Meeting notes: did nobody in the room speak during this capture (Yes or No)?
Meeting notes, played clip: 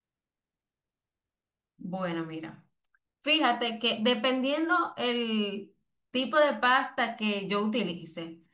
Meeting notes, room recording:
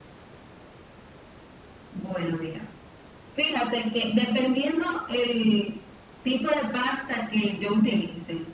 Yes